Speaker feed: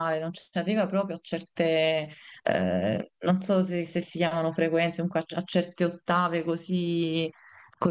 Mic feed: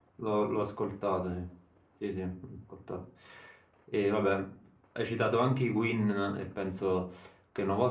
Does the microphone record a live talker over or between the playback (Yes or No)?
Yes